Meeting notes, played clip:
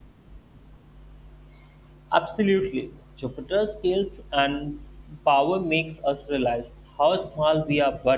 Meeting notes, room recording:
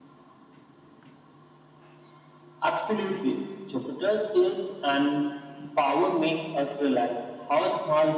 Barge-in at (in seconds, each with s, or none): none